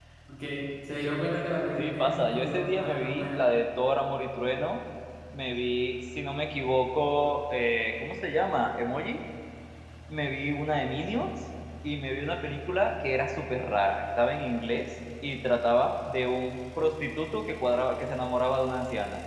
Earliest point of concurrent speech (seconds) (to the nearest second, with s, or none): 2 s